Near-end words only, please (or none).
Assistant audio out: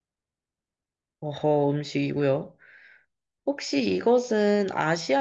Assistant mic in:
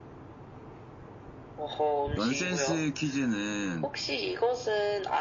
넌센스 퀴즈는